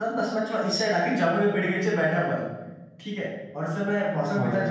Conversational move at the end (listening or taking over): listening